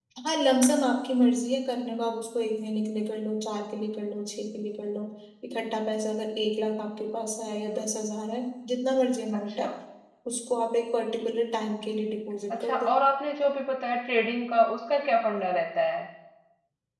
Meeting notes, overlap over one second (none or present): none